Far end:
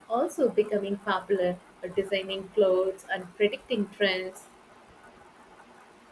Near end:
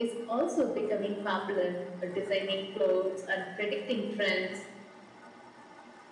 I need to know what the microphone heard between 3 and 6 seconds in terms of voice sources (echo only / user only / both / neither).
echo only